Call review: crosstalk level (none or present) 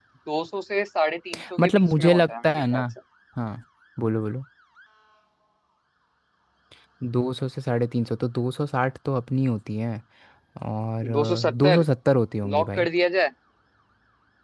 present